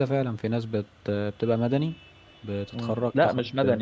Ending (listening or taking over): taking over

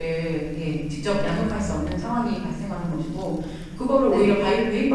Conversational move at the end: listening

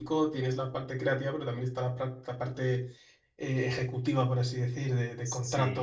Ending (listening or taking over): listening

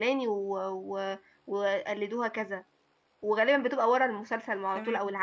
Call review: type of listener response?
listening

